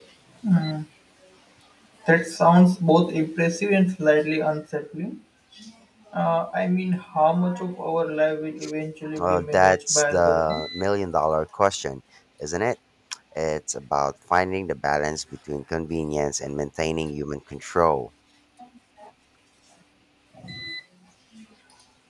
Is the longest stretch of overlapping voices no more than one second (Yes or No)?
No